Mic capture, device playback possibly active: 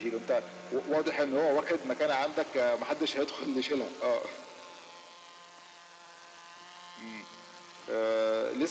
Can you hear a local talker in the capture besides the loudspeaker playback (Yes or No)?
No